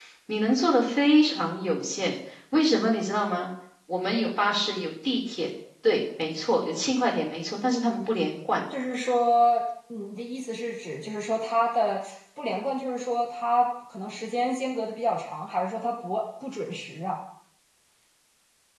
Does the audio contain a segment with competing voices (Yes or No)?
No